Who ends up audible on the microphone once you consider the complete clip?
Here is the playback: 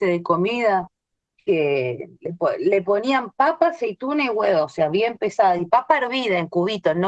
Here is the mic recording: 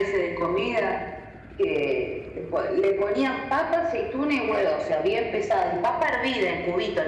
echo only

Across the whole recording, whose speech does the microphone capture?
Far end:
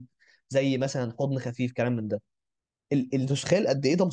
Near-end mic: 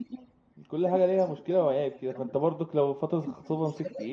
both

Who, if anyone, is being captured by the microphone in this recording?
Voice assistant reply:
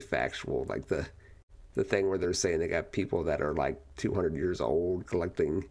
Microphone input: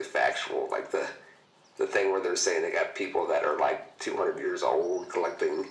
echo only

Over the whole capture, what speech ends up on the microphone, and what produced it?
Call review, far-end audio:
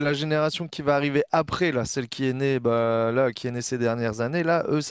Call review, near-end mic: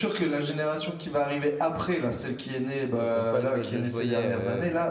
both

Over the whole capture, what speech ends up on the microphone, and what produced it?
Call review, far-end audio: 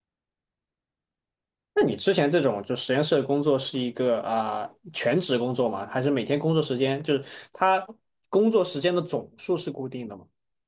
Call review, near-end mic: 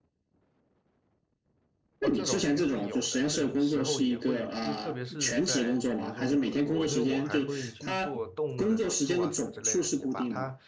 both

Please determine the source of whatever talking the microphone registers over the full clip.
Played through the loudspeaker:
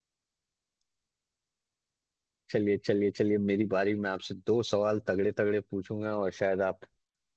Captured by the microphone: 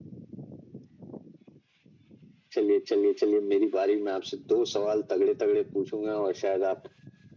echo only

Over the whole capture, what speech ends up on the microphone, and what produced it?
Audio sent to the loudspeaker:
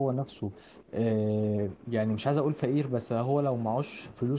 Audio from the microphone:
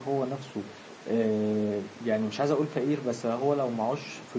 echo only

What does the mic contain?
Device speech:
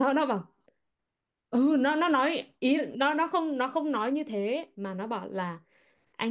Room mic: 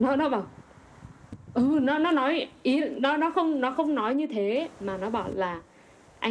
echo only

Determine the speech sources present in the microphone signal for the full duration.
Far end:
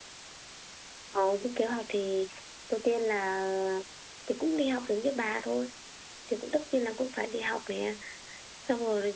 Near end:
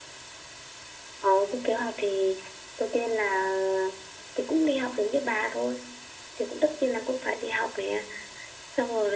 echo only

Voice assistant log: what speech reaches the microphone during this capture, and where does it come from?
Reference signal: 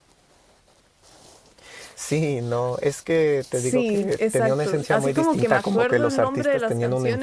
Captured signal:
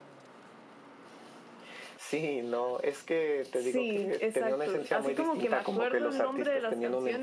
echo only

